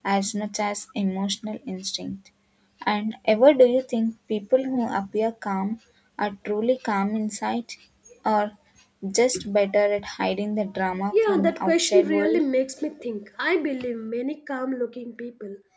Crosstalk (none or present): present